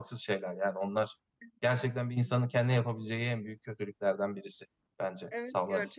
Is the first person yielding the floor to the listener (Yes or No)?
Yes